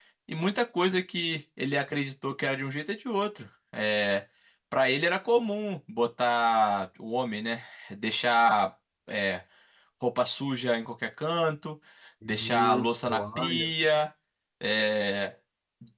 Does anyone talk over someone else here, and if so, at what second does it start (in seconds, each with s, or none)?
12.3 s